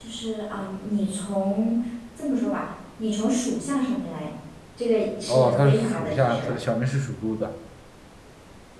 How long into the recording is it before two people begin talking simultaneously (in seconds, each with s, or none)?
5.3 s